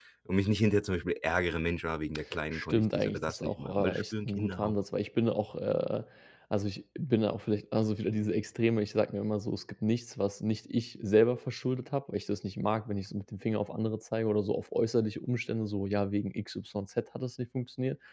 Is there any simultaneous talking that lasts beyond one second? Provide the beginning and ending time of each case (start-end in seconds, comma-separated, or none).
2.5-4.8